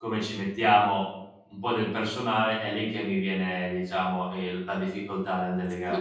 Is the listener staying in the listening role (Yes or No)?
No